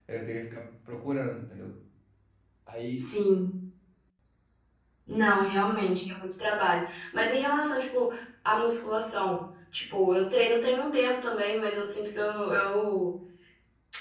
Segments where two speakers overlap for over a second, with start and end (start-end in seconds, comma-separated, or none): none